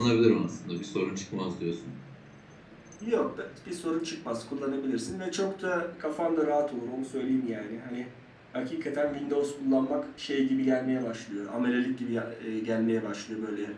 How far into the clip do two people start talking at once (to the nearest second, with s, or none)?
none